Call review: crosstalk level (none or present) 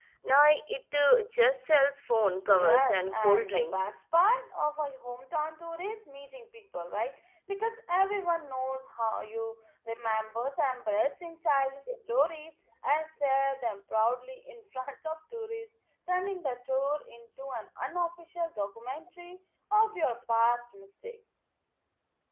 present